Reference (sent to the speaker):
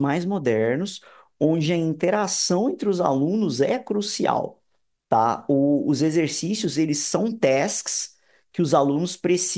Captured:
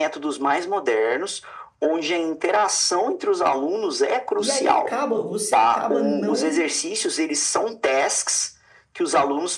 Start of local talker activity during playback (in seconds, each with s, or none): 4.4 s